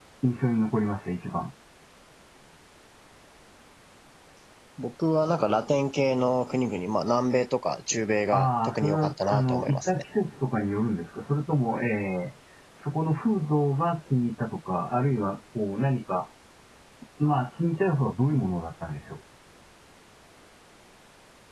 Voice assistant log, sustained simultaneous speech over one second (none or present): present